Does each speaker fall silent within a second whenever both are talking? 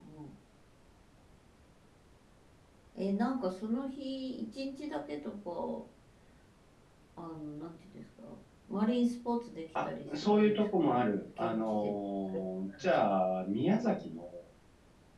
No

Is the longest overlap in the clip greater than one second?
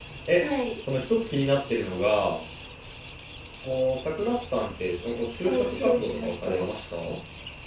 Yes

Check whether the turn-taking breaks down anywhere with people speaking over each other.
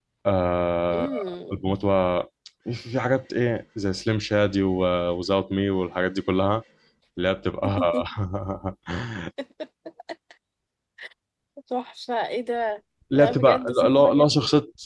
Yes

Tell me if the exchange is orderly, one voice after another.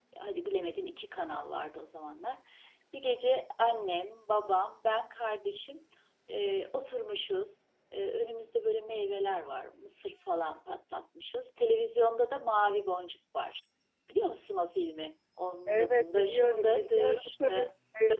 No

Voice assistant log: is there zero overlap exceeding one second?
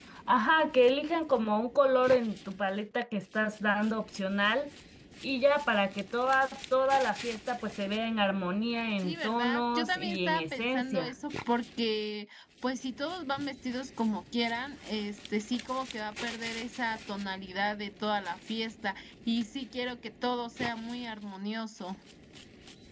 No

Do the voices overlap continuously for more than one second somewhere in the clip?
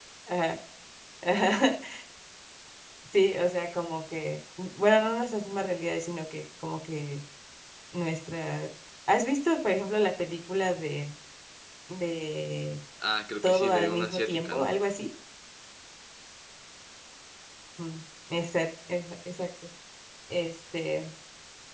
Yes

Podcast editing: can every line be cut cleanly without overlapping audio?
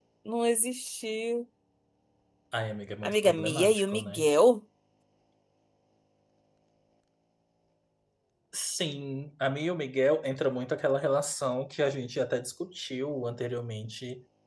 No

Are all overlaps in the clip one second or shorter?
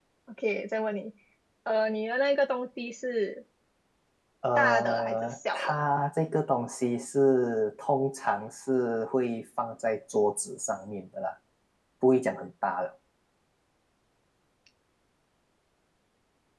No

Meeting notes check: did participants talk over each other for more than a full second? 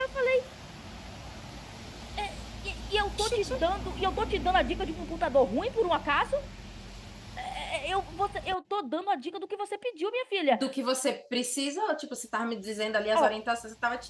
No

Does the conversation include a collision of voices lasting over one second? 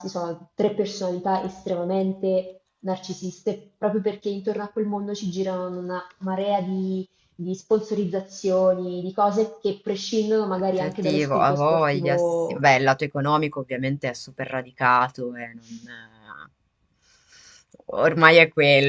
Yes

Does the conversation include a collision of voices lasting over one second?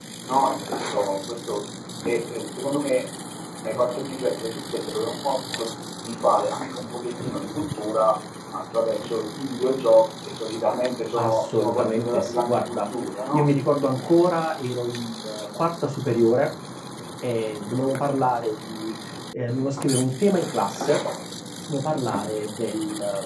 Yes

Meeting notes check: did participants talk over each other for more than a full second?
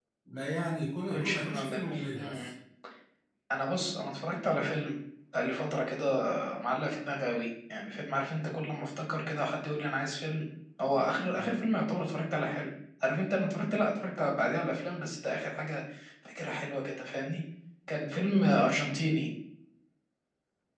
Yes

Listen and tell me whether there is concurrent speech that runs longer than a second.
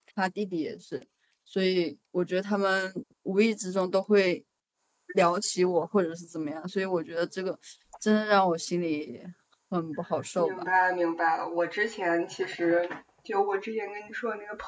No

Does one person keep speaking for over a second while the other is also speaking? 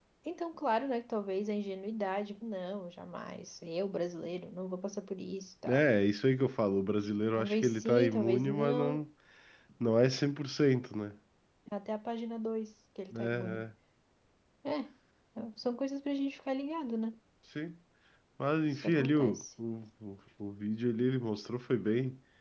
Yes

